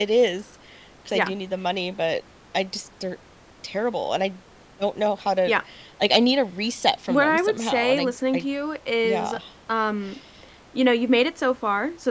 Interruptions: present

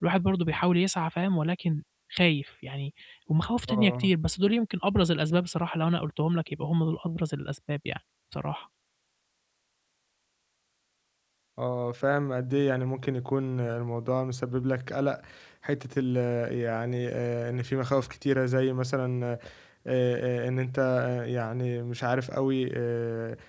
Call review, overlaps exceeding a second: none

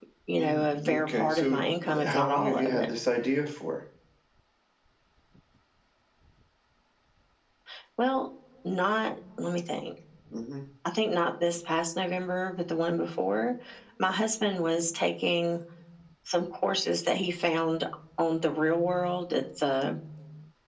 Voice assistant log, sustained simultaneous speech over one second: present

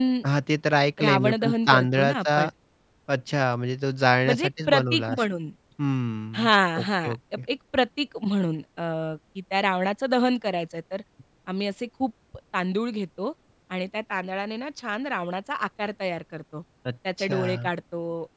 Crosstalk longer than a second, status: present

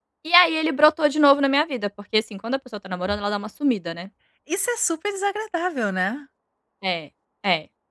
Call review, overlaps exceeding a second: none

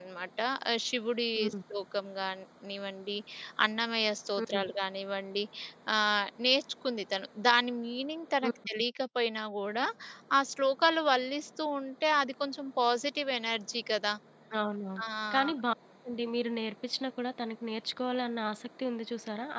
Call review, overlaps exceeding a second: none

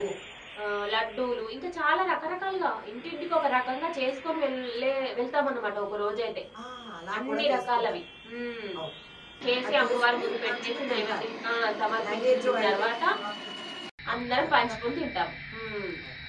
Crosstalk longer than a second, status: present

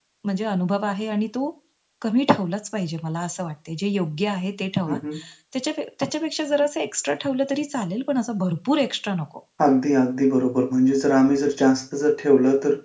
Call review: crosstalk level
none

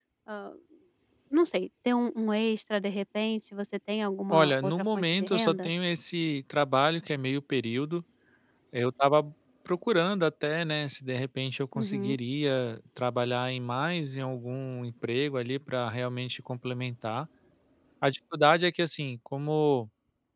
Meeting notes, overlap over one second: present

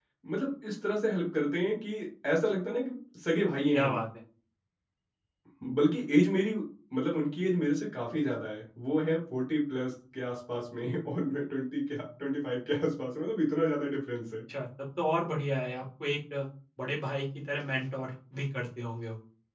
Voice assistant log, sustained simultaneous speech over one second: none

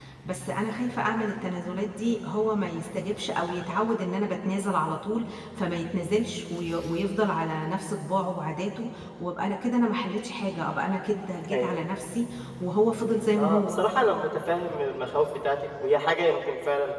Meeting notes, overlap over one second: none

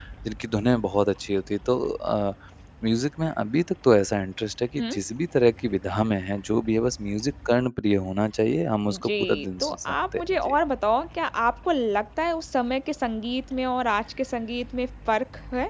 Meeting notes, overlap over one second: present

